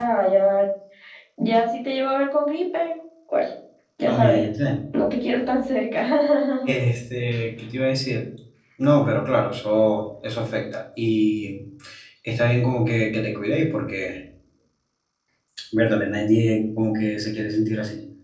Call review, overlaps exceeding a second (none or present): none